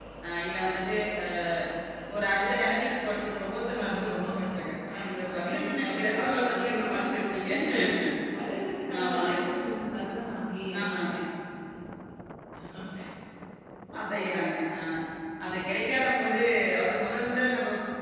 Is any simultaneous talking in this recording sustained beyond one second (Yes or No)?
Yes